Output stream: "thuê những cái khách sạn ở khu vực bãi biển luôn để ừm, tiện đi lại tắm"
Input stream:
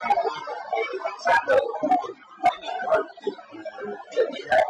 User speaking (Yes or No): No